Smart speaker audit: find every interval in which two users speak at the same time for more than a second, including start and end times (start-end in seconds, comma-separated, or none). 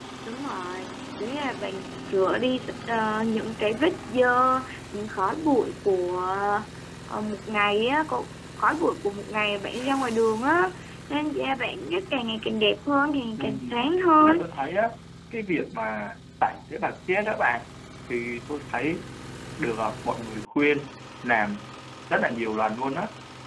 none